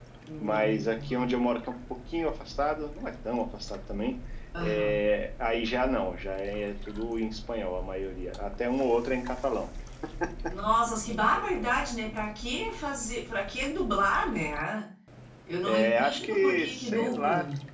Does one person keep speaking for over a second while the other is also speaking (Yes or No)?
Yes